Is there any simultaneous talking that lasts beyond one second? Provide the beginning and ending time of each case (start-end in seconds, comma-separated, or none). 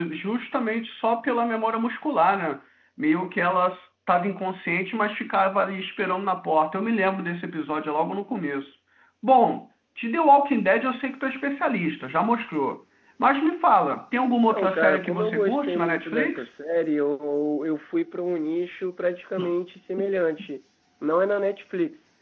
14.5-16.4